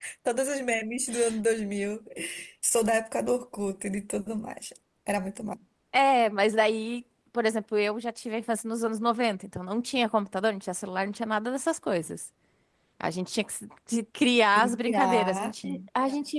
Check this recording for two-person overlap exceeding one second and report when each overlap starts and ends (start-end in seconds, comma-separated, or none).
14.6-15.8